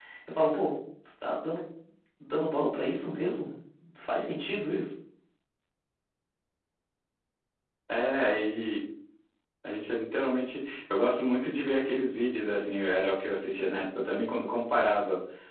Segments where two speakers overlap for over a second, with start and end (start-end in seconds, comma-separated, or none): none